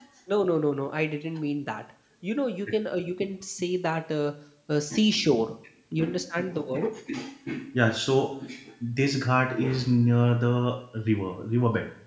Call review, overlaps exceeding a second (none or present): none